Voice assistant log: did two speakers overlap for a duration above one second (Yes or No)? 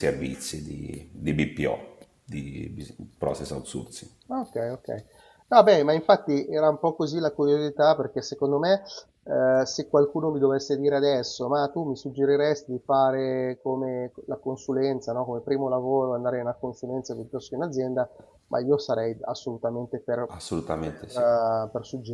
No